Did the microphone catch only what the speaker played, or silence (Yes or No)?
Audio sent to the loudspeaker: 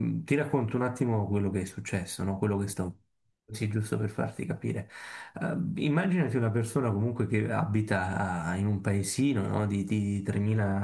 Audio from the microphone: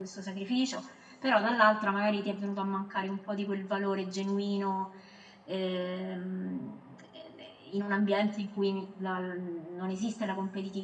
No